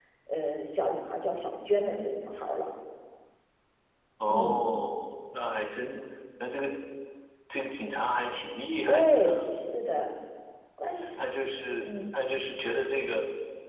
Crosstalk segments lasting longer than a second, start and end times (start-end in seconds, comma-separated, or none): none